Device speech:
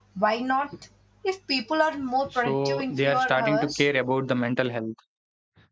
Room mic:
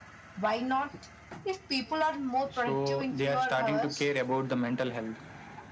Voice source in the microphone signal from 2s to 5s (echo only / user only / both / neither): echo only